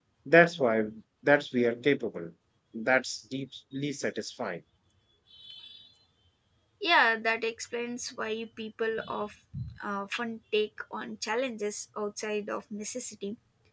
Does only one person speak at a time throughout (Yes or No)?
Yes